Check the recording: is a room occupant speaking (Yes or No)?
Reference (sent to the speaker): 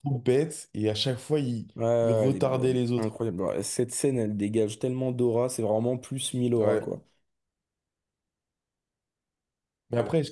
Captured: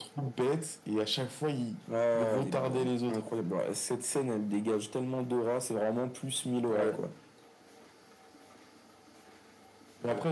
No